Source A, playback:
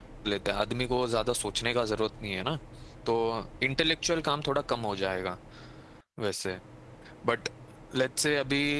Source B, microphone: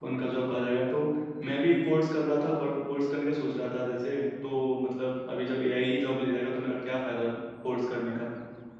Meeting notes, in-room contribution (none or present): present